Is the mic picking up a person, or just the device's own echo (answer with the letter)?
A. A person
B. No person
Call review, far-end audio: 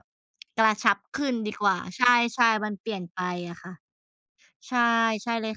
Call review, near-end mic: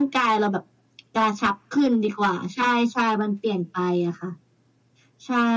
B